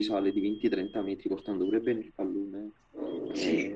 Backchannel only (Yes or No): No